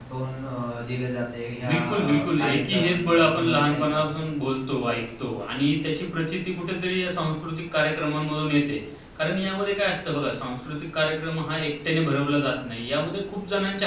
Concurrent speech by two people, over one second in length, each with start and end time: 1.7-4.2

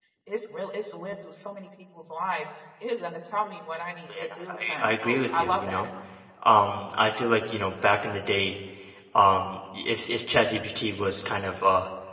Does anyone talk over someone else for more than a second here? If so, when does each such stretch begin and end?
4.2-5.9

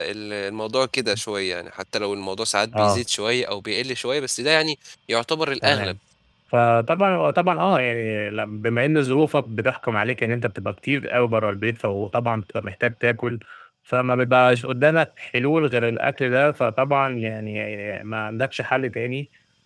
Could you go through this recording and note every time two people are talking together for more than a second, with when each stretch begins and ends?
none

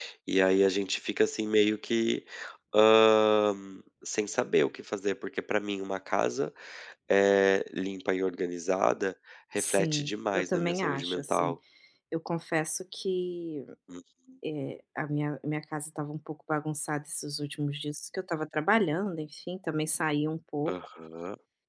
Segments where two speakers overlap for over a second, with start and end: 9.6-11.6

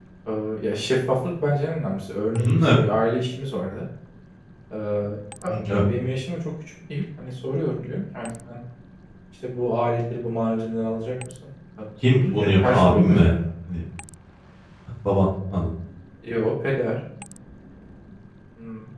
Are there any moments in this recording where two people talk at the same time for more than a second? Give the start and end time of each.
12.1-13.3

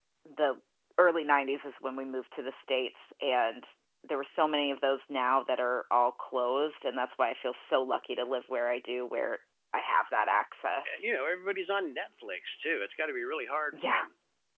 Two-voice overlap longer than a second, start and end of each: none

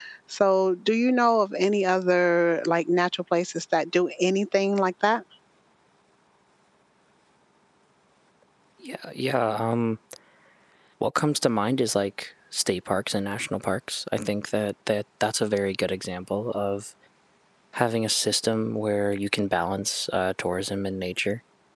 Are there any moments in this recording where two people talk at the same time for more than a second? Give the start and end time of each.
none

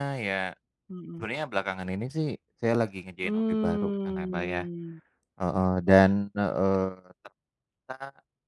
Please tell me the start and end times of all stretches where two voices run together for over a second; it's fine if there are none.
3.2-4.6

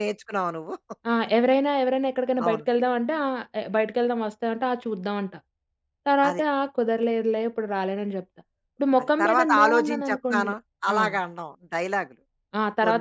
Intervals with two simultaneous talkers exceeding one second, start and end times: 9.2-10.5

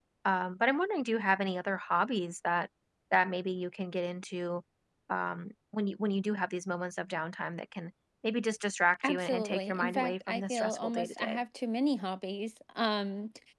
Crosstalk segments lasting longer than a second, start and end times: 9.0-11.4

